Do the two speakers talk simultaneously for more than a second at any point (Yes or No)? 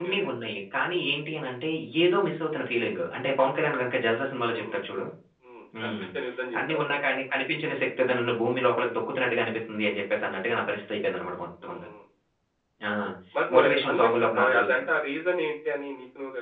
Yes